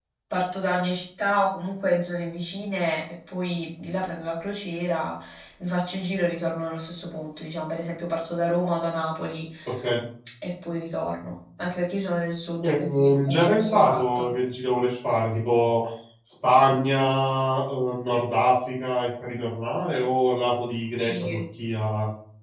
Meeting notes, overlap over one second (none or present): present